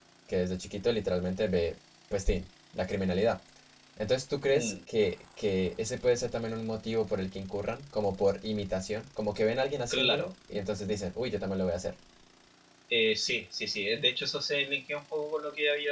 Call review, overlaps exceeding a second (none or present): none